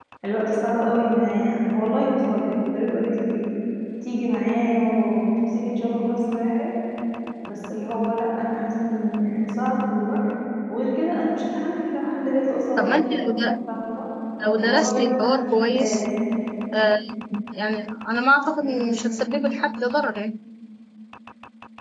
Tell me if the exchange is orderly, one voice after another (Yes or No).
No